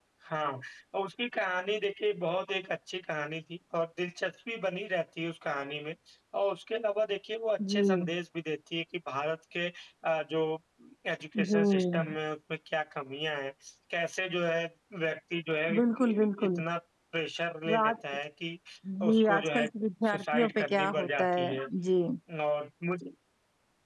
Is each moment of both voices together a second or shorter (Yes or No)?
No